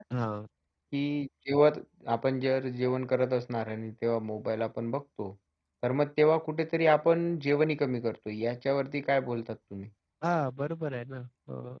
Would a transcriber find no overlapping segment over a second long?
Yes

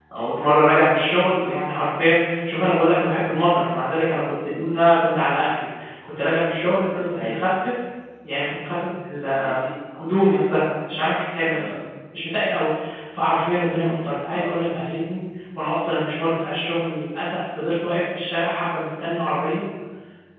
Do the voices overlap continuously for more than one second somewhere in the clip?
No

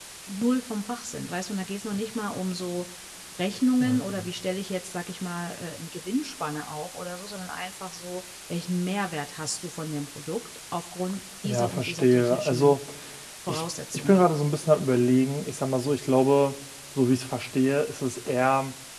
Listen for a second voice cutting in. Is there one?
Yes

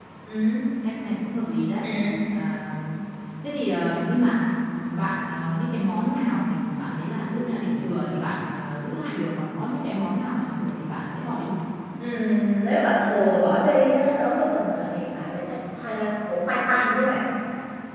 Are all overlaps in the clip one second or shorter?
Yes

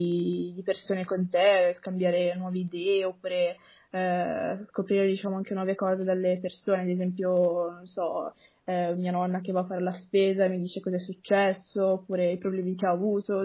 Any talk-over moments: No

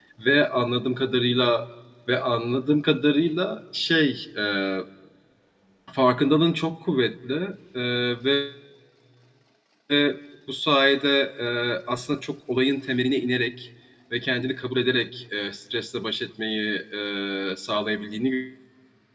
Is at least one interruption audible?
No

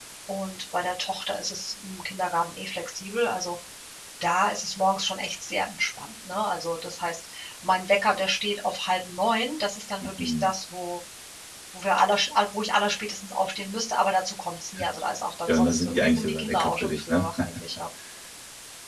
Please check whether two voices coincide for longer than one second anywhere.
Yes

